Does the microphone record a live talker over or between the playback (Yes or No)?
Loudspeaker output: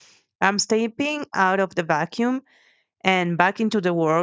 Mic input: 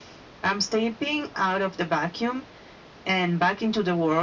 No